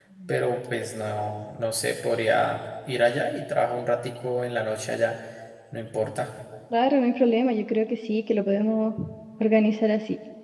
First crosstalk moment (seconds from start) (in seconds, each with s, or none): none